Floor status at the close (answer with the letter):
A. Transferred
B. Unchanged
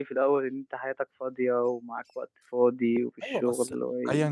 A